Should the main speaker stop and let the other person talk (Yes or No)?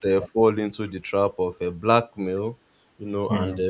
No